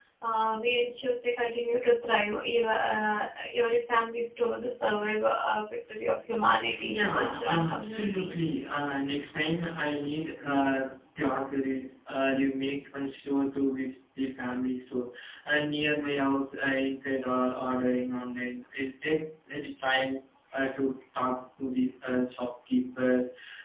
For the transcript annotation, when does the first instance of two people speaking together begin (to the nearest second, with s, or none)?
7 s